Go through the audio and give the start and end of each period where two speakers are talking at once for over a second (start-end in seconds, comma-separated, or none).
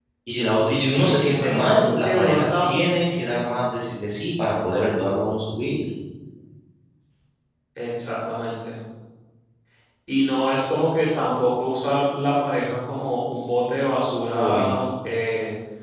0.9-2.7